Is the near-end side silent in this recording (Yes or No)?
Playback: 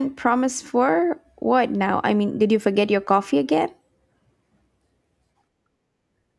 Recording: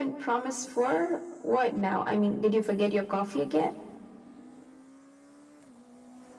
Yes